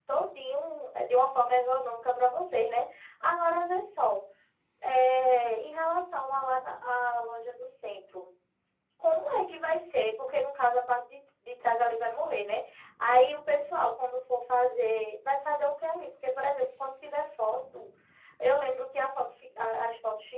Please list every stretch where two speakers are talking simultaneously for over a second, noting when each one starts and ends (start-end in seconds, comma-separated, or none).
none